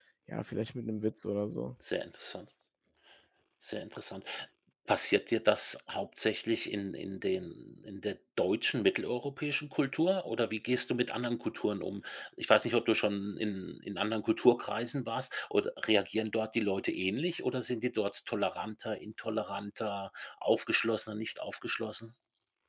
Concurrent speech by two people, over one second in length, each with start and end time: none

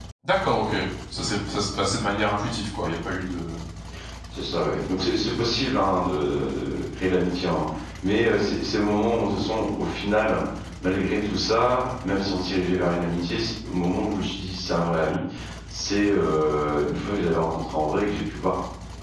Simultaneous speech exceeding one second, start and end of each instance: none

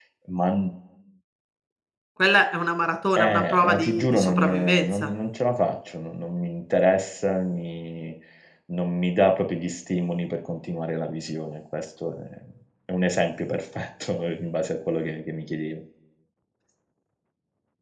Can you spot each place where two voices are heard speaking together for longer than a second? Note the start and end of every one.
3.2-5.1

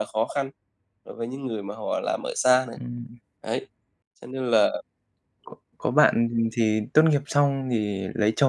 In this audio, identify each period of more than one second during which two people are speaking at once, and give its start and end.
none

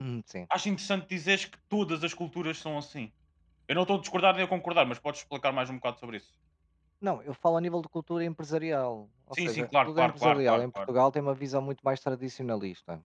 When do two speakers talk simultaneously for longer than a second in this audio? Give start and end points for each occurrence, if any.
9.3-10.8

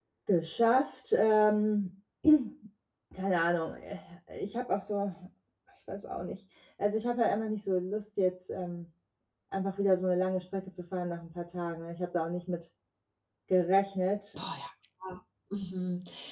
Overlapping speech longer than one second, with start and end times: none

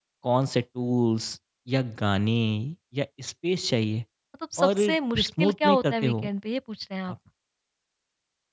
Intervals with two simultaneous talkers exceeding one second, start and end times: 4.6-6.1

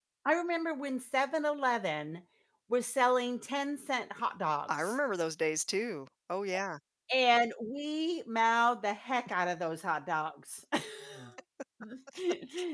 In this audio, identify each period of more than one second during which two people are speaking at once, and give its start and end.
none

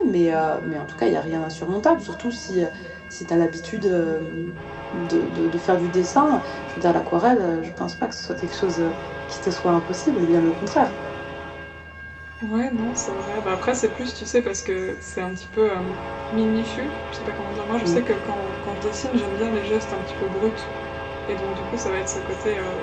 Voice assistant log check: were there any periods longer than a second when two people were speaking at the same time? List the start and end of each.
none

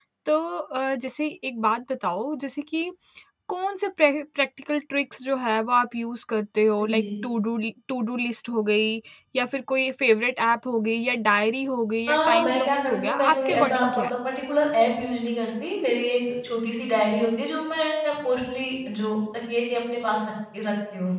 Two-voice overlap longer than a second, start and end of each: 12.1-14.1

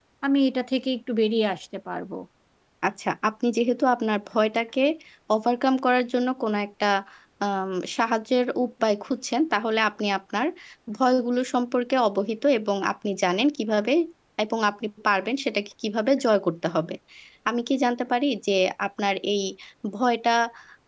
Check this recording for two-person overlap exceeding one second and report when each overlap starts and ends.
none

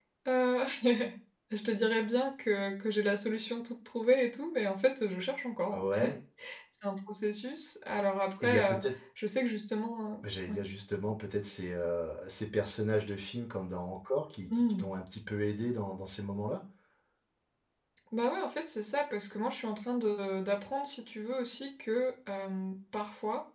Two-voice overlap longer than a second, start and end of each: none

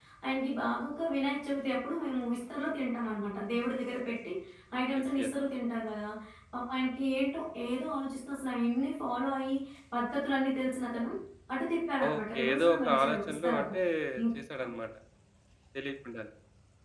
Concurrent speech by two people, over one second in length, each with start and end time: 12.1-13.8

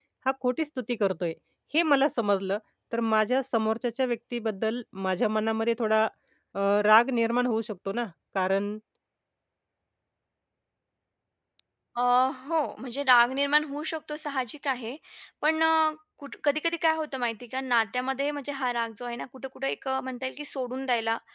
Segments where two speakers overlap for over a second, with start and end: none

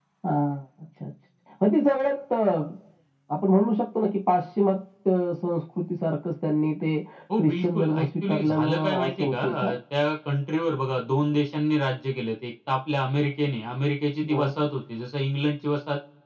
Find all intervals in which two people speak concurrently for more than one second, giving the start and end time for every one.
7.4-9.7

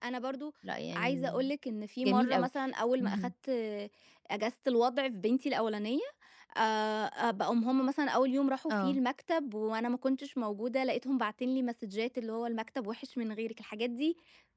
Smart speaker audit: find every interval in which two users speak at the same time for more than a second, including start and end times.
none

